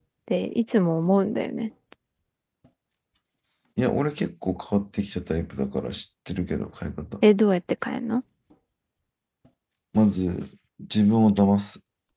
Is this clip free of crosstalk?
Yes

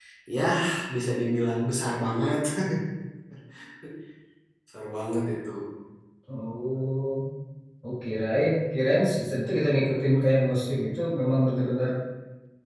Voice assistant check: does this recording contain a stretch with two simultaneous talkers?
No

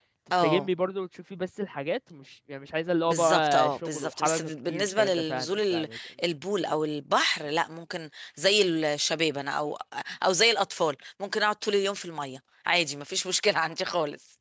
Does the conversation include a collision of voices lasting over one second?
Yes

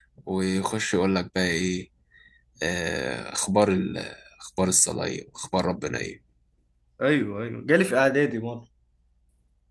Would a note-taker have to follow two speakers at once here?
No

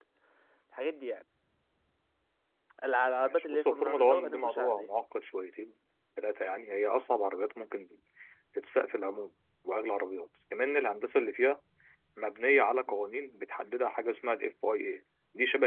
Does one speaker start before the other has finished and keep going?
Yes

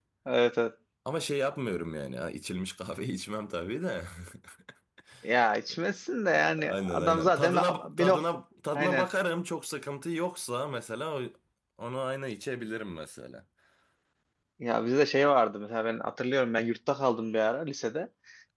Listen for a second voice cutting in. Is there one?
Yes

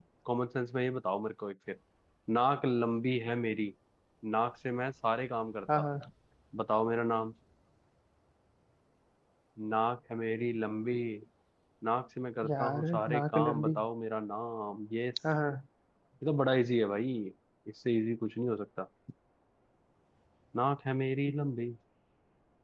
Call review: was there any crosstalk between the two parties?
Yes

